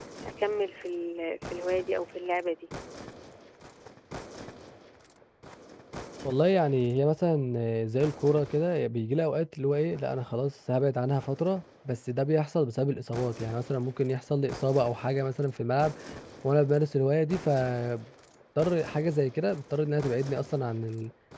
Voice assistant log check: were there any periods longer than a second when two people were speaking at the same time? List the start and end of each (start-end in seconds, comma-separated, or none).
none